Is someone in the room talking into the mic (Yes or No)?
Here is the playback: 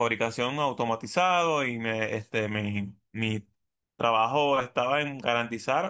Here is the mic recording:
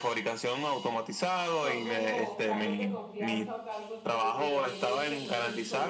Yes